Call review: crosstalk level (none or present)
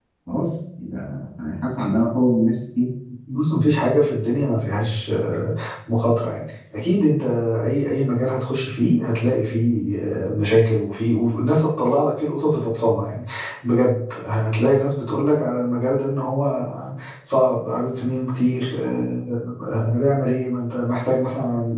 none